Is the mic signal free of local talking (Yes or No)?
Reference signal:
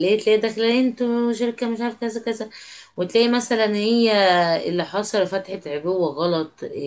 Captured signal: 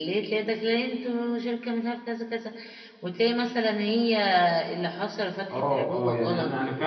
No